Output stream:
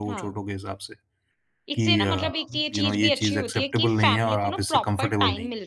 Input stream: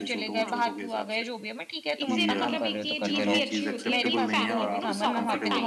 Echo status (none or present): present